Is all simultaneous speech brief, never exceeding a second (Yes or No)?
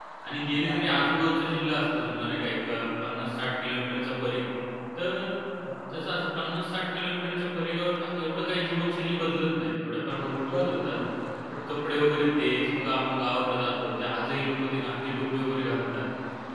Yes